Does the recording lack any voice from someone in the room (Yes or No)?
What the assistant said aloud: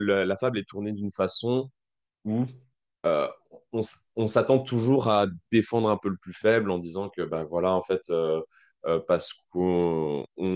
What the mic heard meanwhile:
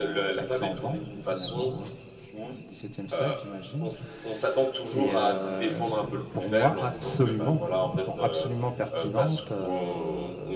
No